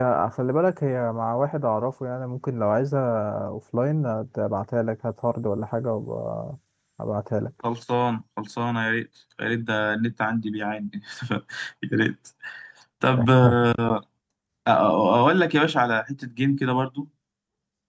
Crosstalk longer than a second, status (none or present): none